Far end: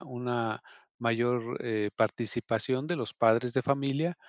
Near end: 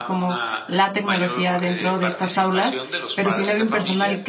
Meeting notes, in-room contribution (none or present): present